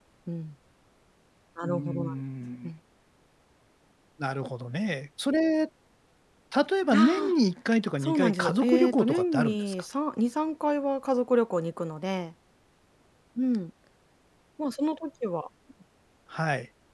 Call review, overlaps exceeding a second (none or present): present